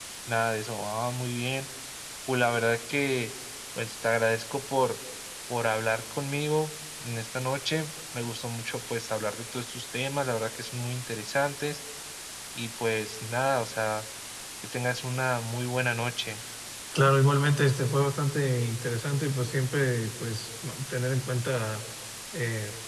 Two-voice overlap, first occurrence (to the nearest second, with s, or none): none